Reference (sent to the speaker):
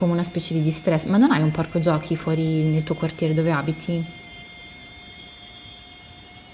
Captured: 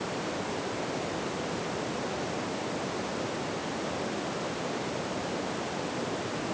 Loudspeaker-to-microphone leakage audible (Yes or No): No